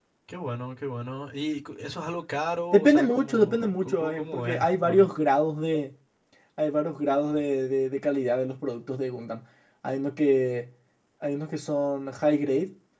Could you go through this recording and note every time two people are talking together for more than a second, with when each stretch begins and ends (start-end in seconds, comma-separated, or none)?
2.7-5.1